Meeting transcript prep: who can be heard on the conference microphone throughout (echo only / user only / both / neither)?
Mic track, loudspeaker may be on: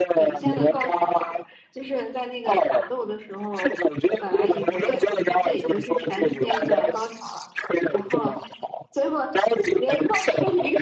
both